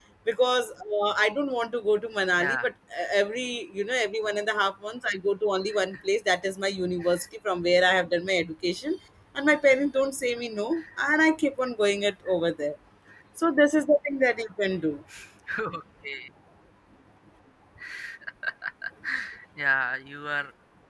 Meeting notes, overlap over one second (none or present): none